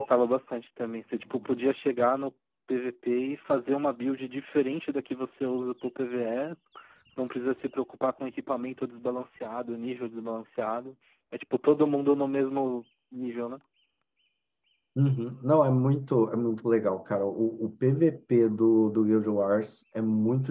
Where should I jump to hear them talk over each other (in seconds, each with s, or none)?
none